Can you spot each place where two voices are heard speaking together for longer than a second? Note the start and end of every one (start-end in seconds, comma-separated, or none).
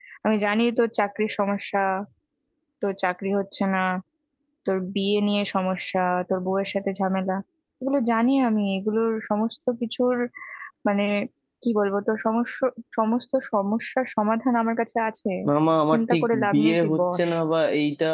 15.9-17.3